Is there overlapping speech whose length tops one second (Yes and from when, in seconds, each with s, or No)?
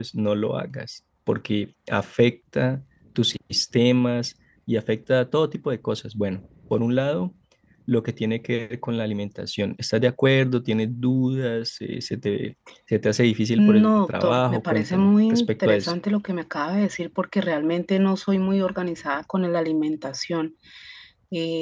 Yes, from 13.6 s